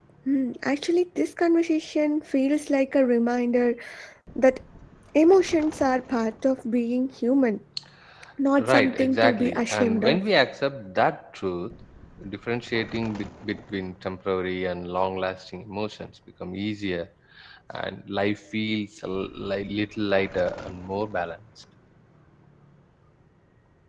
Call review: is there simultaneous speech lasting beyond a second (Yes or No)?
Yes